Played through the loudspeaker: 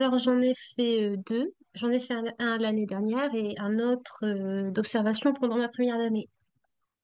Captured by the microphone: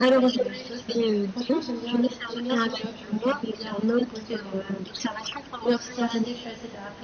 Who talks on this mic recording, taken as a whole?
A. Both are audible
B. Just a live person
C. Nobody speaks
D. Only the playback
A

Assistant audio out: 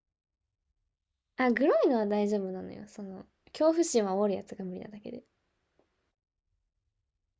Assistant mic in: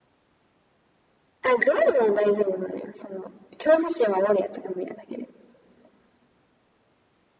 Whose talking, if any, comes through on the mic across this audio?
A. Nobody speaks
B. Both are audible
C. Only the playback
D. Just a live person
C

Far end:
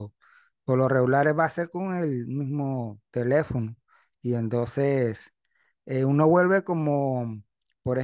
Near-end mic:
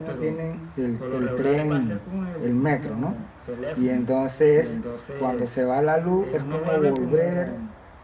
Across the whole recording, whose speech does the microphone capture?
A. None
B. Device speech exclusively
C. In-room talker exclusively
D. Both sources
D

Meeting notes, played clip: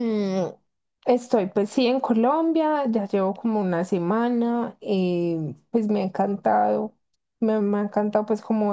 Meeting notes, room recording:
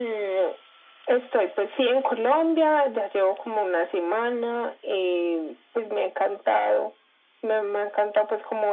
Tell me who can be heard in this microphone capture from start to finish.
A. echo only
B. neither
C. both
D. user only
A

